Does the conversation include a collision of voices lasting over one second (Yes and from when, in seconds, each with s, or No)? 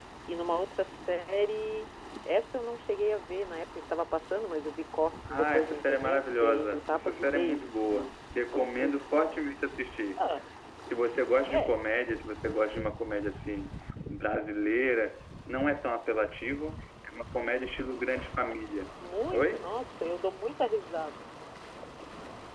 Yes, from 5.3 s